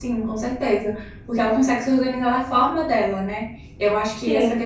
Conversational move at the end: listening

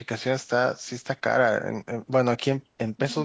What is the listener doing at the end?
listening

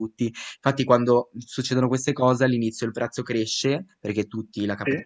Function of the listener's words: listening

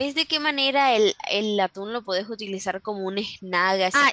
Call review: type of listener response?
taking over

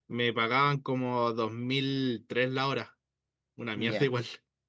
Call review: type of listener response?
taking over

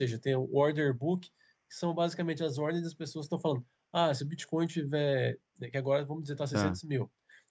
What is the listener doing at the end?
listening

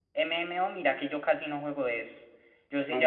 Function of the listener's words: listening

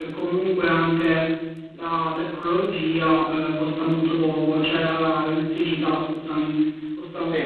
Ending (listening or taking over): listening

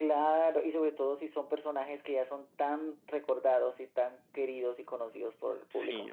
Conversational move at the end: taking over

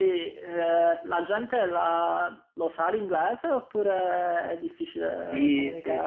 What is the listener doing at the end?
taking over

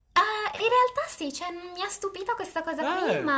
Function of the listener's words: listening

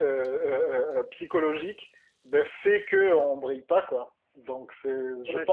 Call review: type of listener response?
taking over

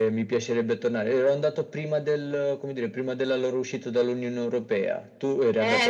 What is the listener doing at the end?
taking over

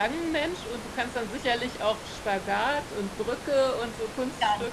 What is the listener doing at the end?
taking over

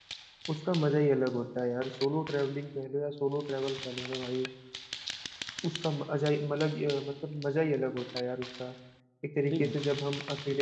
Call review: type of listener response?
listening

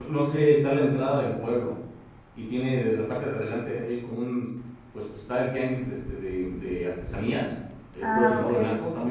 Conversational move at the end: listening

